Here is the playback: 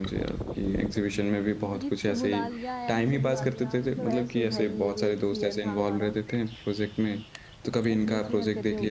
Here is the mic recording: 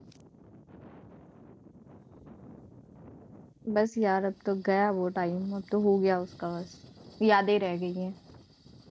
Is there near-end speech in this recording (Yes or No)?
Yes